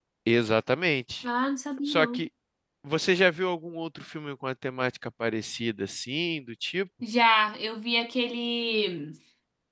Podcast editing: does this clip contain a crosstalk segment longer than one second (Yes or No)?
No